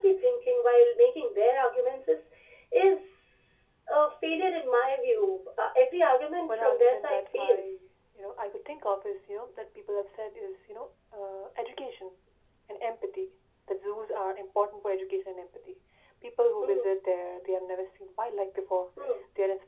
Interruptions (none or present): present